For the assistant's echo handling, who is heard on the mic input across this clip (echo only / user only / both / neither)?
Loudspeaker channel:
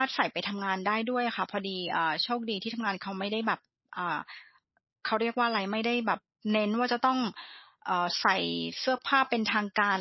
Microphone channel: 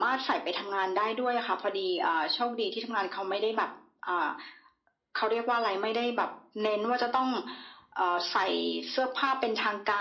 echo only